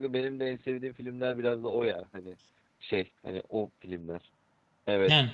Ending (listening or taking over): listening